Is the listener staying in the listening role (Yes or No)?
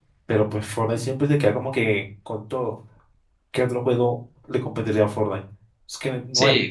No